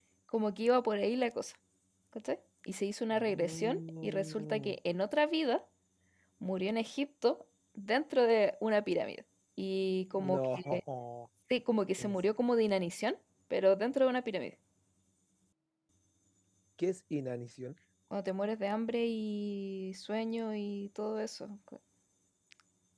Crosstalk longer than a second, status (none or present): present